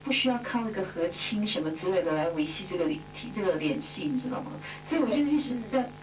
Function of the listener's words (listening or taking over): listening